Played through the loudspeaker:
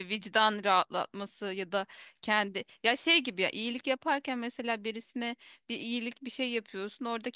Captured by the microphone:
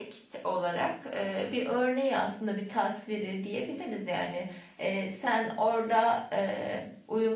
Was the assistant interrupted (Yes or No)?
Yes